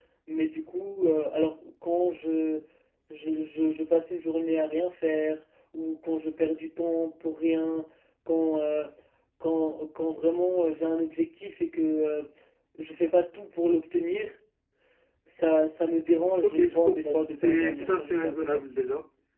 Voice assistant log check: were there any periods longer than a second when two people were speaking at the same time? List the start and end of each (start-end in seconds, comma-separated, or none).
16.4-18.6